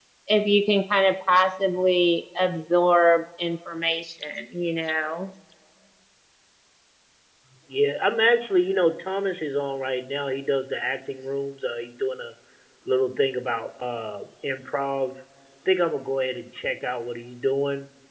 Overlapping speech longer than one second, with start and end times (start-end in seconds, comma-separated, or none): none